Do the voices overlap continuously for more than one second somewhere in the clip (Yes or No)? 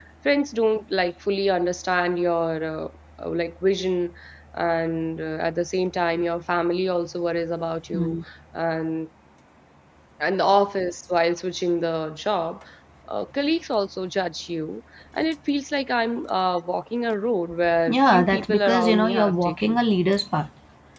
Yes